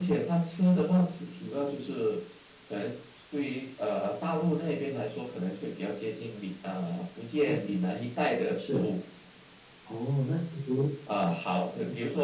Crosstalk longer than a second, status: none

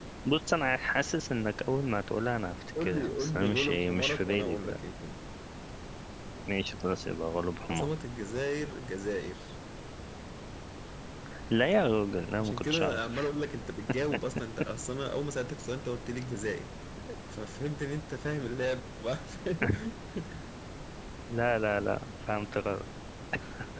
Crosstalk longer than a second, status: present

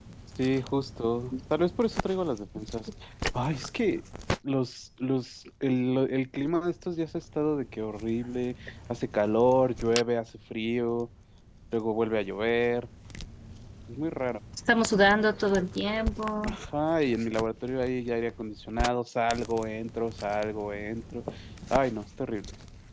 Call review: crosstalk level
none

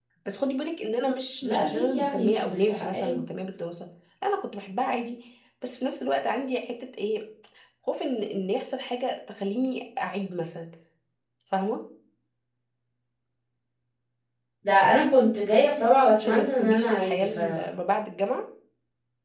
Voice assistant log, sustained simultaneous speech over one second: present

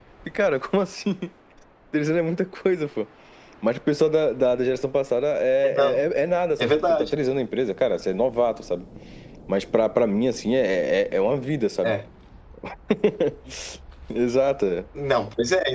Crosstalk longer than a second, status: none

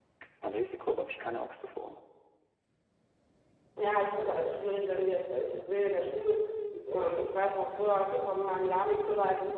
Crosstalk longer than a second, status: none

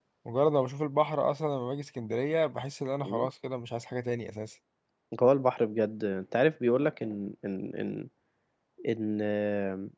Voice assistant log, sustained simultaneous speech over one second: none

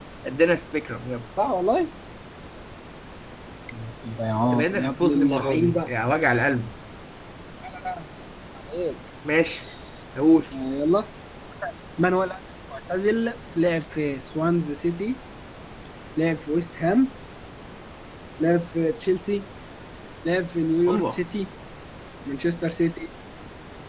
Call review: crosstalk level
present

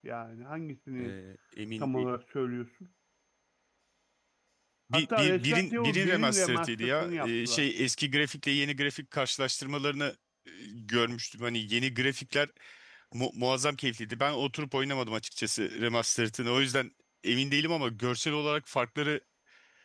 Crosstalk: present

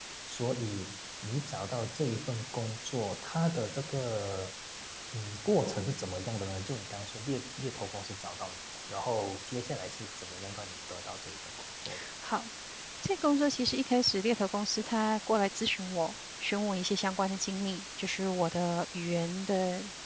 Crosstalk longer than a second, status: none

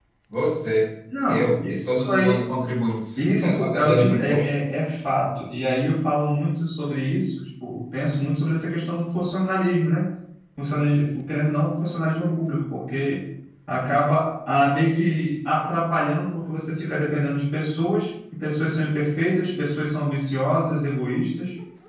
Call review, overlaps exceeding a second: present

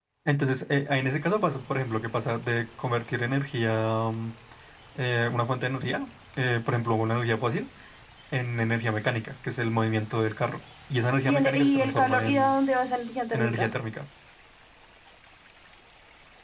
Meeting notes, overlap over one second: present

